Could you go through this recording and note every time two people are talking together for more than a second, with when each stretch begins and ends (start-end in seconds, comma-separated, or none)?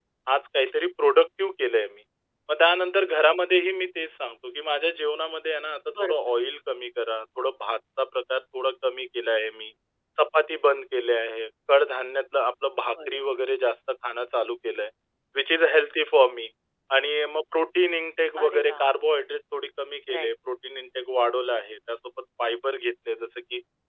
none